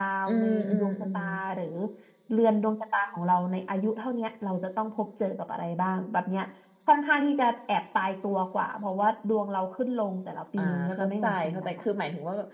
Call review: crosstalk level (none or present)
present